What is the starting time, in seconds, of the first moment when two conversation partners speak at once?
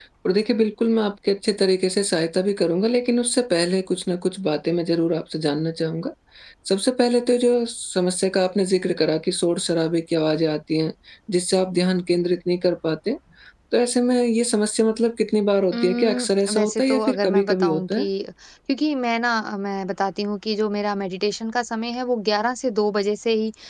15.7 s

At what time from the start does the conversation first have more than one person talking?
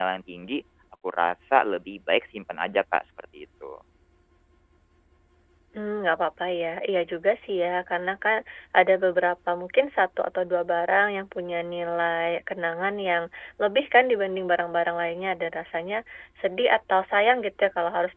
none

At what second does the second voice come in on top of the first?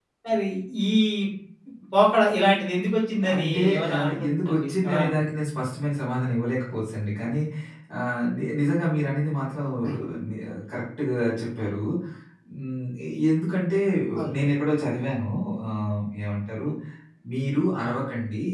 3.3 s

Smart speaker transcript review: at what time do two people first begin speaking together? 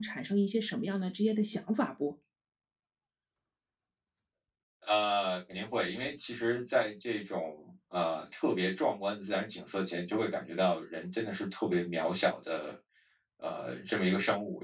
none

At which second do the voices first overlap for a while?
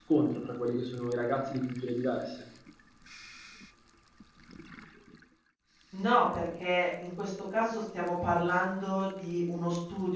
none

